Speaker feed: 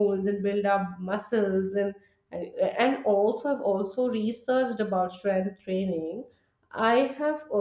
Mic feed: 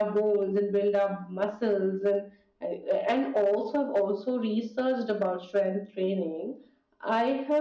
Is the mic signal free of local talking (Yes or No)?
Yes